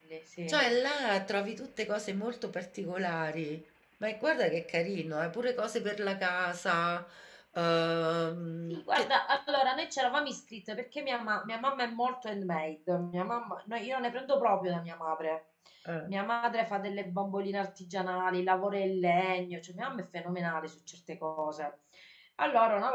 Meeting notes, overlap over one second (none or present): none